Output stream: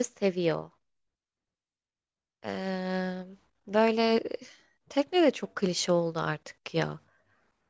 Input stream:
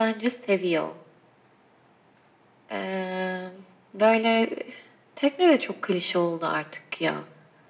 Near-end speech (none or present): none